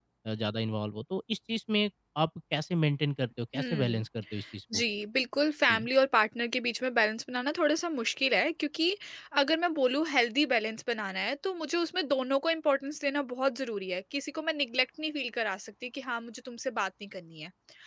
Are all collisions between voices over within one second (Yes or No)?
Yes